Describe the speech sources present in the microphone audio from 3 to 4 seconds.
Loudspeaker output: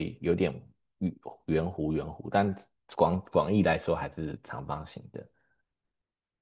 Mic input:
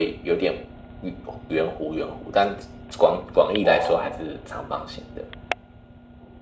both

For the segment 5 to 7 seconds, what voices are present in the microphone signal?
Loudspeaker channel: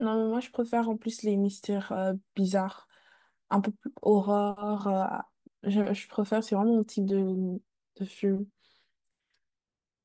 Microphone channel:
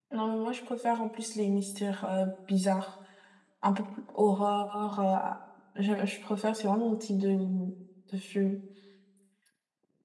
echo only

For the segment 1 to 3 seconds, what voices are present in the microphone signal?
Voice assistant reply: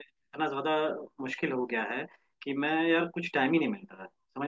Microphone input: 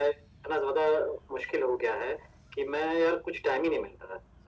echo only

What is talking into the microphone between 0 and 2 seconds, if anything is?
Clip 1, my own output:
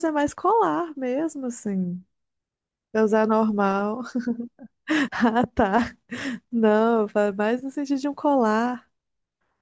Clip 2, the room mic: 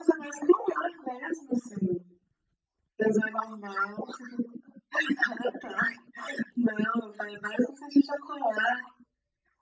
echo only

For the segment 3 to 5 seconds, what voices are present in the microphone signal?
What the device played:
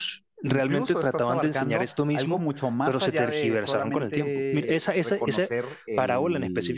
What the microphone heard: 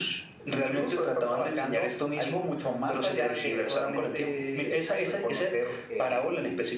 echo only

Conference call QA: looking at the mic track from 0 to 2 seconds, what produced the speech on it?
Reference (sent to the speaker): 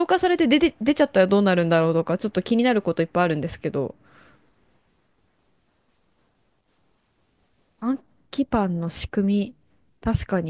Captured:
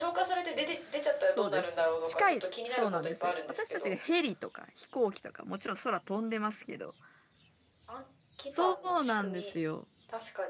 both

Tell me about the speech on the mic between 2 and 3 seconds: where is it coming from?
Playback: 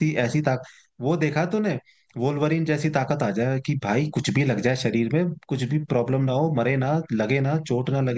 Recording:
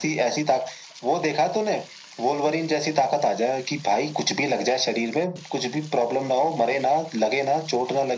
echo only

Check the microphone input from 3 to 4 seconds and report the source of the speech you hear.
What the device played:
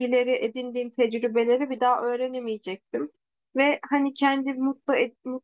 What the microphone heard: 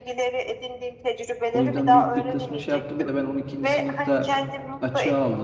both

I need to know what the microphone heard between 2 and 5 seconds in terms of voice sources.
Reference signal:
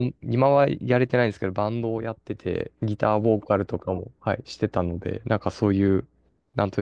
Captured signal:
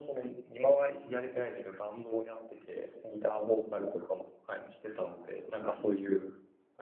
echo only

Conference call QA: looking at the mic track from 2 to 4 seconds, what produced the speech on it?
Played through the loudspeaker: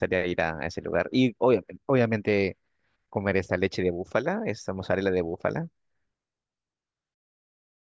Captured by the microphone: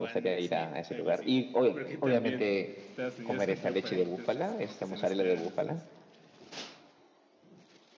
both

